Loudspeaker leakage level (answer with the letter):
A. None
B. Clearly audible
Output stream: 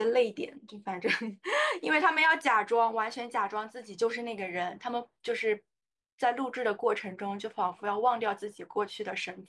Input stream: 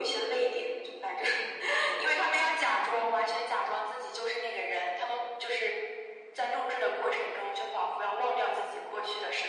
B